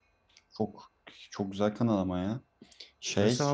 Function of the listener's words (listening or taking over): taking over